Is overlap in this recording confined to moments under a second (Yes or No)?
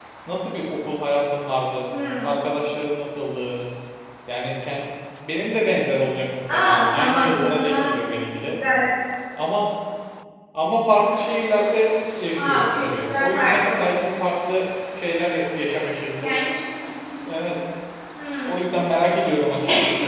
No